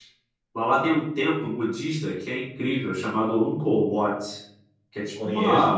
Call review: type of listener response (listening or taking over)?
taking over